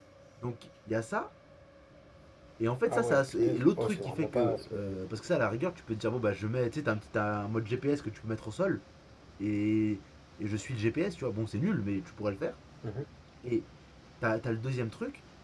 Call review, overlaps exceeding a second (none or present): present